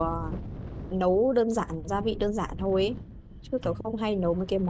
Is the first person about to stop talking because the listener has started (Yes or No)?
No